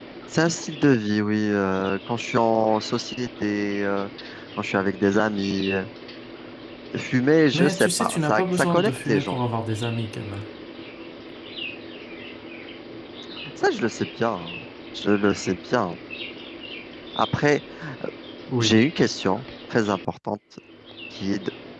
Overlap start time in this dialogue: 7.5 s

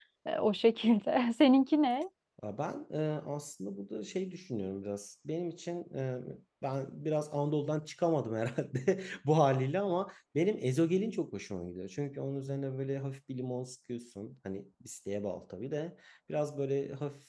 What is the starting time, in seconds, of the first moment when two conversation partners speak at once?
none

